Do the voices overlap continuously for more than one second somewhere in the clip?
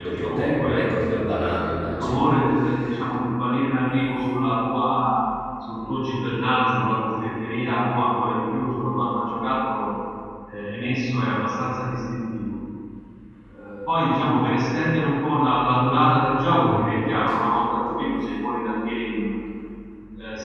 Yes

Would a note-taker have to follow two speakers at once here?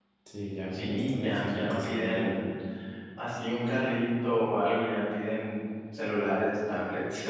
Yes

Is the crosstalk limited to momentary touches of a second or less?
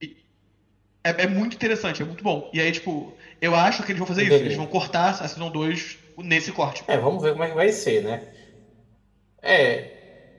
Yes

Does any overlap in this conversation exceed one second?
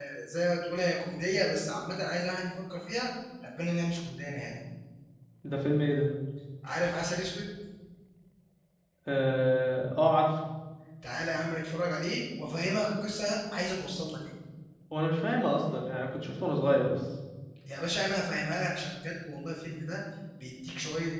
No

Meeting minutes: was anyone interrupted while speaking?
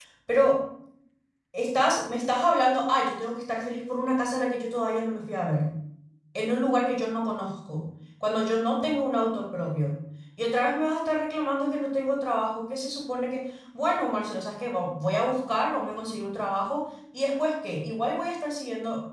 No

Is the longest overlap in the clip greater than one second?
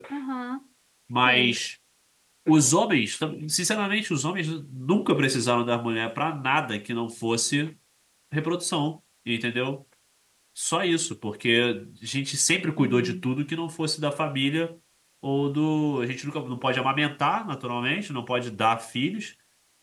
No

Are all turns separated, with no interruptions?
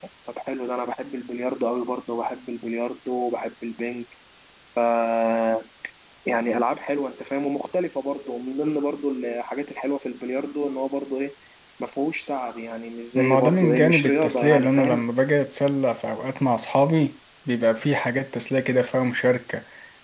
No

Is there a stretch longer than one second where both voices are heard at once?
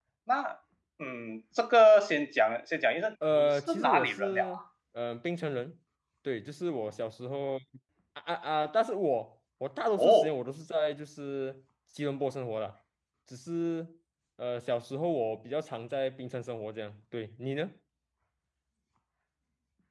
Yes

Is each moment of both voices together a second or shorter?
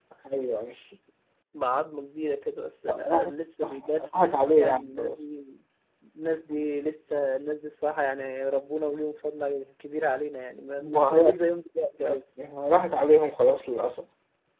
No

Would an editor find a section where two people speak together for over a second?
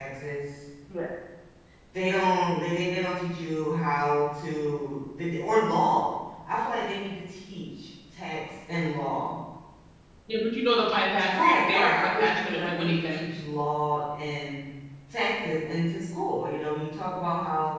Yes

